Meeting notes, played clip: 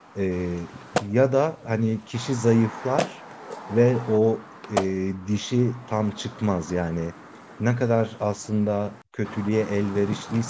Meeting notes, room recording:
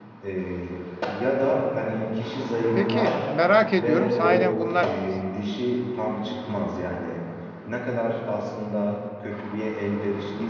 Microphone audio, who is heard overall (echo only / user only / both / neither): both